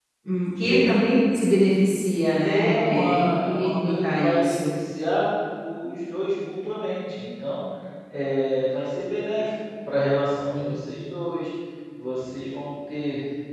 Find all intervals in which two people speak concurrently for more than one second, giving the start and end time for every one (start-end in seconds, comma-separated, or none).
2.4-4.6